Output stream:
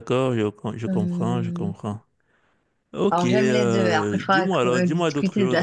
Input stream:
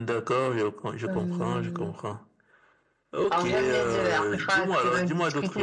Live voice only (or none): none